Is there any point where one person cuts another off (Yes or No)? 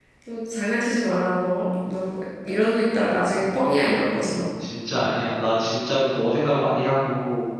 No